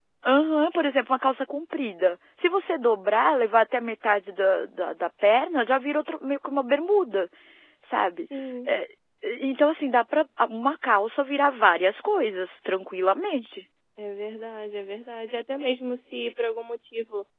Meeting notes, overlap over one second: none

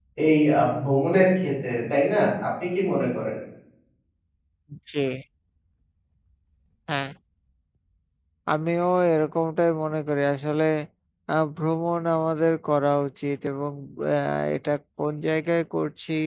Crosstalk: none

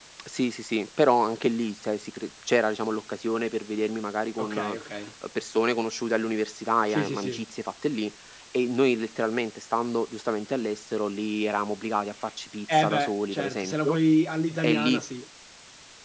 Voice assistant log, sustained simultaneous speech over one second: present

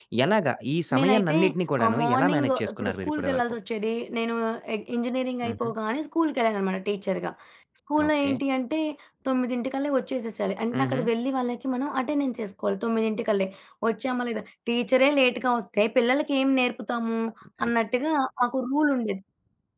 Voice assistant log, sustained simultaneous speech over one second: present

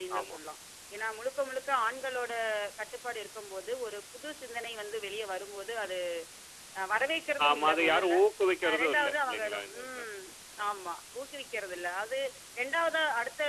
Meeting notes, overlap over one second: present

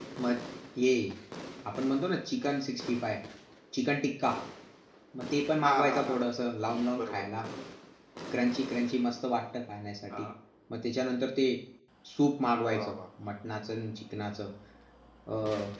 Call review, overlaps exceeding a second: none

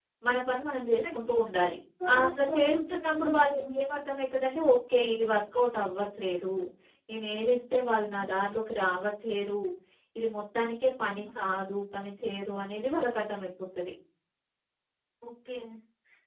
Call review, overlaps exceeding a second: present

